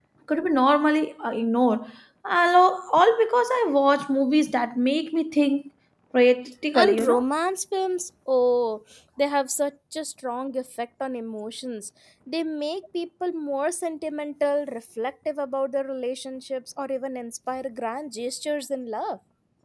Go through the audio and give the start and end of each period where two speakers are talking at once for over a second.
none

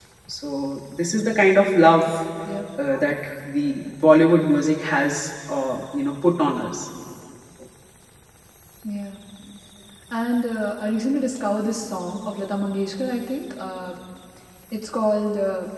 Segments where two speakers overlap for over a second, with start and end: none

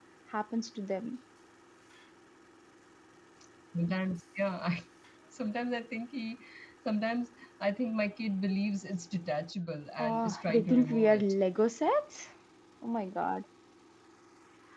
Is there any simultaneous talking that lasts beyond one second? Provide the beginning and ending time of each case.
10.0-11.3

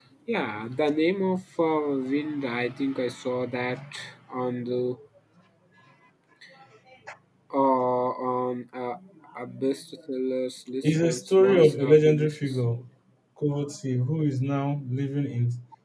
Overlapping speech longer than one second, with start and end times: 10.8-12.6

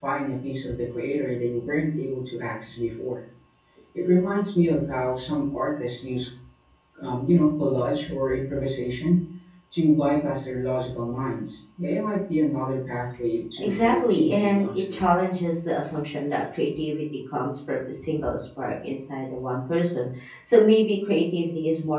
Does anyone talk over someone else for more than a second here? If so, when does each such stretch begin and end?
13.6-15.0

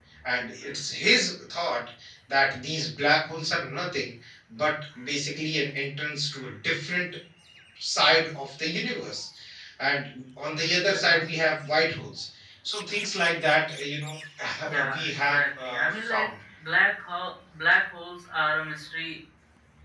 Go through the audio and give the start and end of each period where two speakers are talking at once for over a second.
14.9-16.3

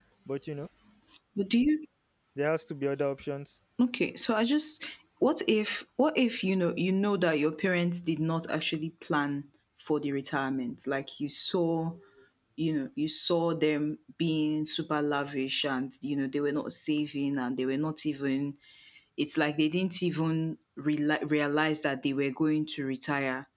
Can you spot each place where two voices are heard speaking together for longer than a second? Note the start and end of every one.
none

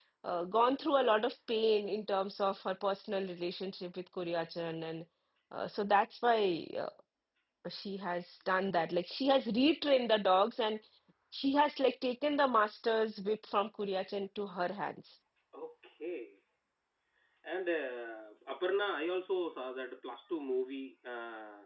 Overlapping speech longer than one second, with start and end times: none

